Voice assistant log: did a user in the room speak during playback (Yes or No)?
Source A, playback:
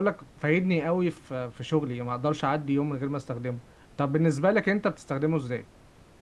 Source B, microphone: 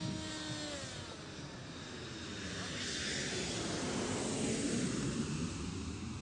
No